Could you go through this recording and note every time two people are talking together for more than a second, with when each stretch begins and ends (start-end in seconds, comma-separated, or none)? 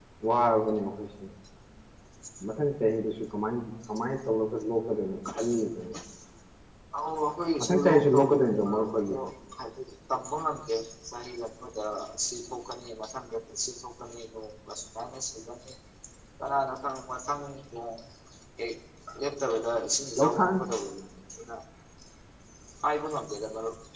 7.9-9.2